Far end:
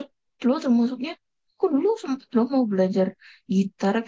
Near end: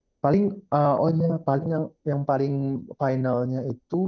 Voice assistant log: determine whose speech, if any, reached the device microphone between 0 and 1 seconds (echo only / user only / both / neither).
user only